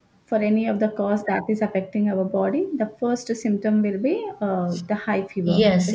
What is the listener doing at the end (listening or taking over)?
taking over